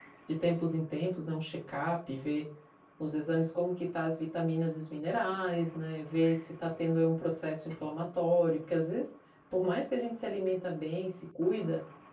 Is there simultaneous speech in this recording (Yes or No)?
No